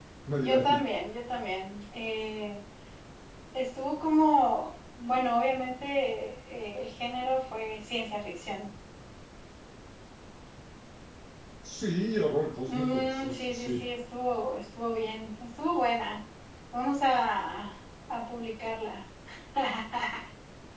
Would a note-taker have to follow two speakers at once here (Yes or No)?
Yes